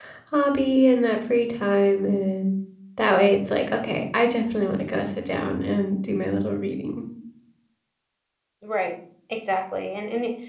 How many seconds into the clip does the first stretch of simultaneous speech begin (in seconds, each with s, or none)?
none